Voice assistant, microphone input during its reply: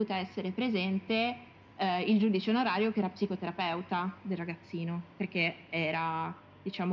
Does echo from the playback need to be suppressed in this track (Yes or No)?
Yes